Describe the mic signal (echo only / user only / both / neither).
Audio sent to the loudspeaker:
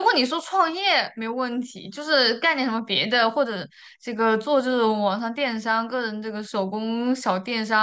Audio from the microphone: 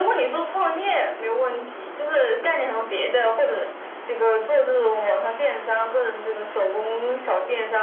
echo only